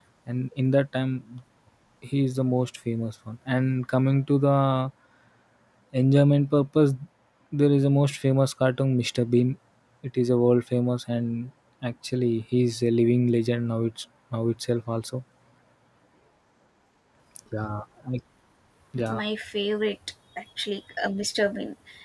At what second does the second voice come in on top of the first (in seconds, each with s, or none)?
none